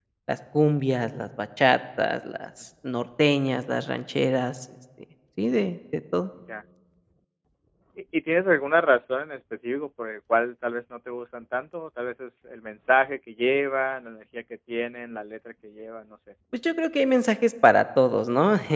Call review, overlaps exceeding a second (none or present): none